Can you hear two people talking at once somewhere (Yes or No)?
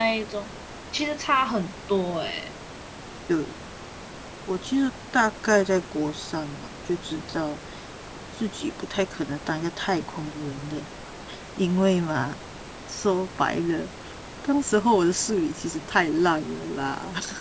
No